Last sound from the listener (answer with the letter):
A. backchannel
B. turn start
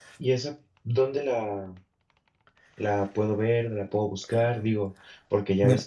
A